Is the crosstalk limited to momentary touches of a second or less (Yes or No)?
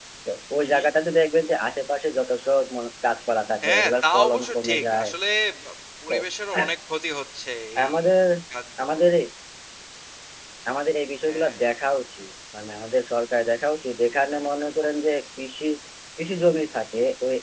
No